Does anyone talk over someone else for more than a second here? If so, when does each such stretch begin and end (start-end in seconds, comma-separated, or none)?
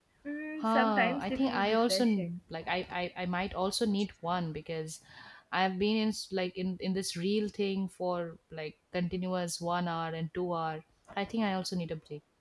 0.6-2.3